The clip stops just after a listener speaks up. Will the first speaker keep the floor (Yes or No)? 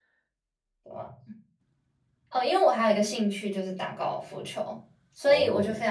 Yes